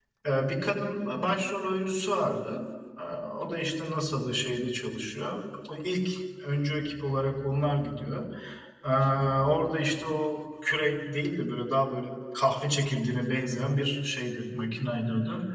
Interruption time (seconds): none

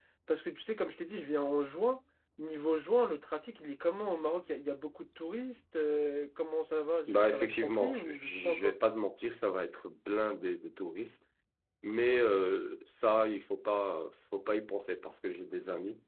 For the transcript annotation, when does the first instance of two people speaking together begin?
7.1 s

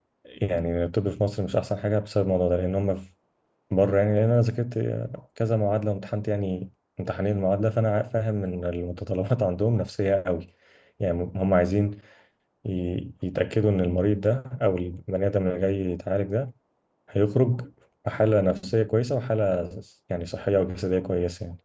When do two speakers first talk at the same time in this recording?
none

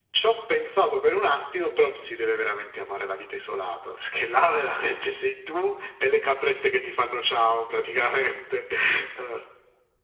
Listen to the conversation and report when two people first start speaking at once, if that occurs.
none

